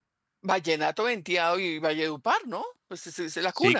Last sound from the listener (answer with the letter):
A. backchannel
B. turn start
B